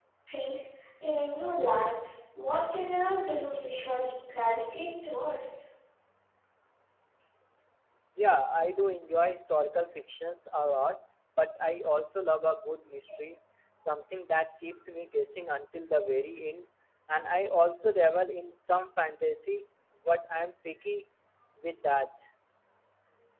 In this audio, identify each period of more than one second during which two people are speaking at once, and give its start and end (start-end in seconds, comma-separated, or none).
none